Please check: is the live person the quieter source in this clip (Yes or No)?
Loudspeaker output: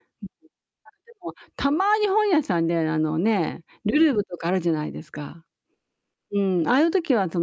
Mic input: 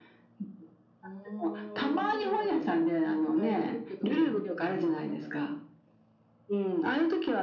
Yes